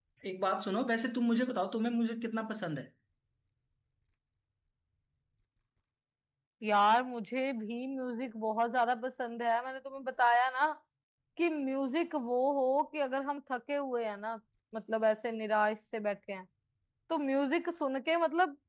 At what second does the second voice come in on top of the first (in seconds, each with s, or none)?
none